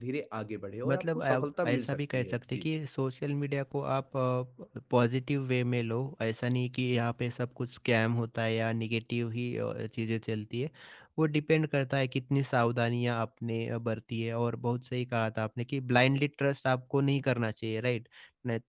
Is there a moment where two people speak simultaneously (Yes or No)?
Yes